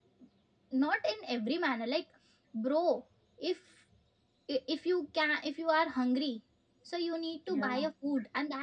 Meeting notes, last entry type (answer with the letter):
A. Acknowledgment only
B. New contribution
A